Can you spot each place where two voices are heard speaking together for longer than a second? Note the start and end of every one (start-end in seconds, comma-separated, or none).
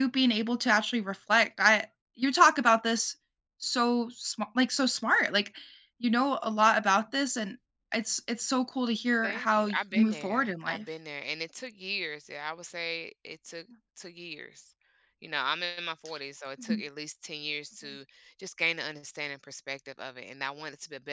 9.2-10.8